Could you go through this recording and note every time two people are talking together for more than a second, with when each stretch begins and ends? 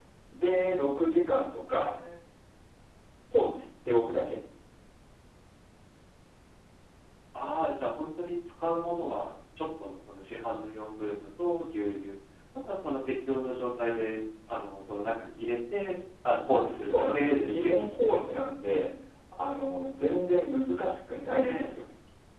16.8-18.2

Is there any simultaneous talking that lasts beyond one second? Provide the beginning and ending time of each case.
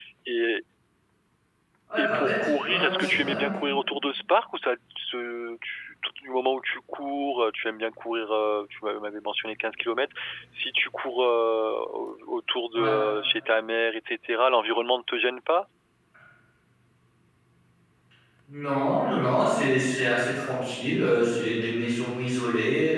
2.0-3.5

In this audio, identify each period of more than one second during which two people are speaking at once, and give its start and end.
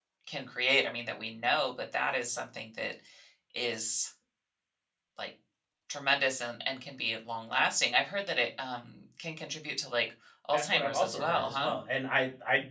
10.5-11.7

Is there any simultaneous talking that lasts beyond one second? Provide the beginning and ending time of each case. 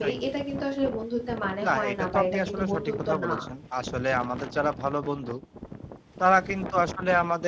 1.6-3.3

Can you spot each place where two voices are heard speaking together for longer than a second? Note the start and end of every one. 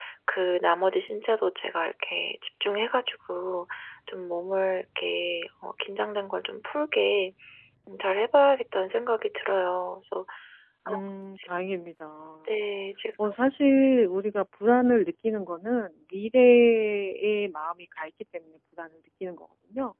none

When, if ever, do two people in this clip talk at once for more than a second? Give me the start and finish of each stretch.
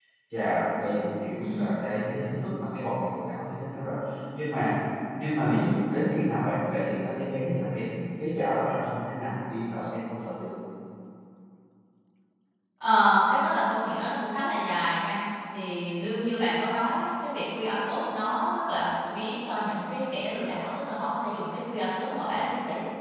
none

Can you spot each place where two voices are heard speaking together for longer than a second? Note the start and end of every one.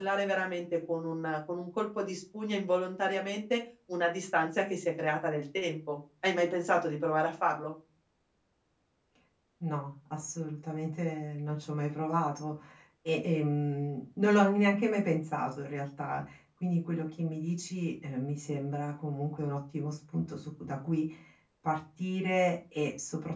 none

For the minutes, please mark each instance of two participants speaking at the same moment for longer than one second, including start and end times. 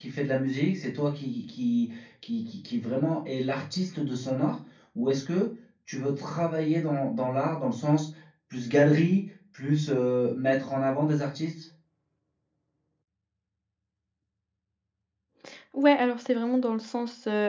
none

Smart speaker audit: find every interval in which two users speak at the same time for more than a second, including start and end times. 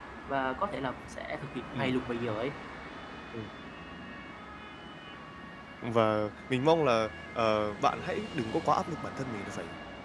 none

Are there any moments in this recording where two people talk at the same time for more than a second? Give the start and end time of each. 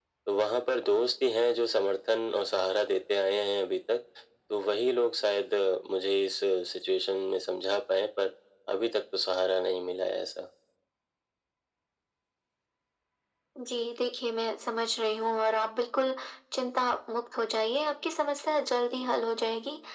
none

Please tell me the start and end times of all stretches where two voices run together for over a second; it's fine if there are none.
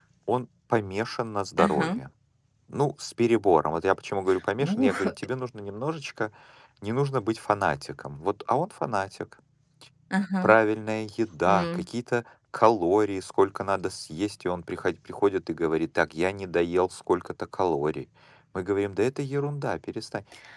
none

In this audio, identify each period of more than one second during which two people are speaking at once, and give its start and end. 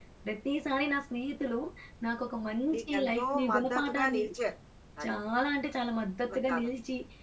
2.7-4.2

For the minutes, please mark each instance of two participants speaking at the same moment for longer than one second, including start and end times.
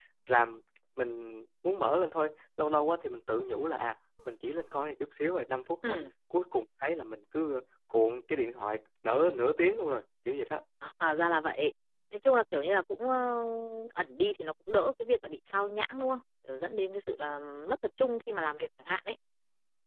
none

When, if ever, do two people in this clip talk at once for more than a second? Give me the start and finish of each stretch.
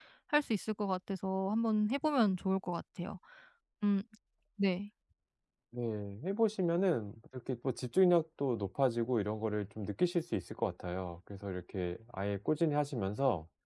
none

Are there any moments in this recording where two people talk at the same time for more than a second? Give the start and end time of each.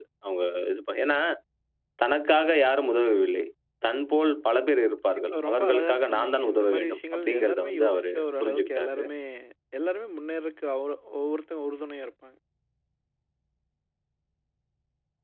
5.1-9.0

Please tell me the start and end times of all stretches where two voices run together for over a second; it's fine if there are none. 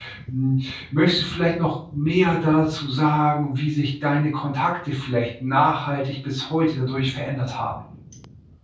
none

